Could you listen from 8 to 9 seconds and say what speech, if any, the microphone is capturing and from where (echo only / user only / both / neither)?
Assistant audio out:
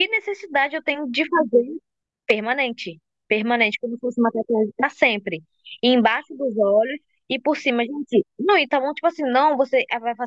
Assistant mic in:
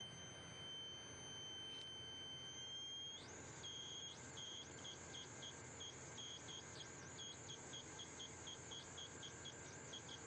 neither